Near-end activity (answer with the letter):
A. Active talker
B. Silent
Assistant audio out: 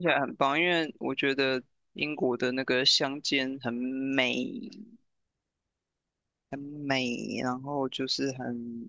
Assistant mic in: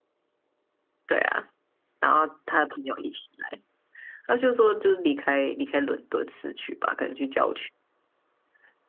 A